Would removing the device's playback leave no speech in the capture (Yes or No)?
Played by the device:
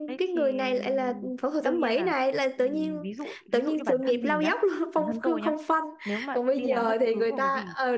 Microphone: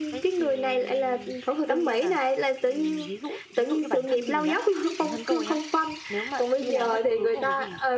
Yes